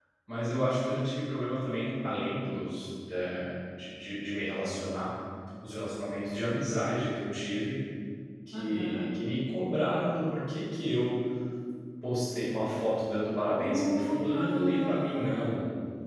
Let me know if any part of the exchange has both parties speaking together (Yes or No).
Yes